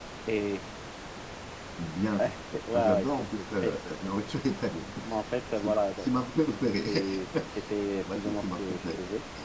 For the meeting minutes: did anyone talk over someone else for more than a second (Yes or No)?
Yes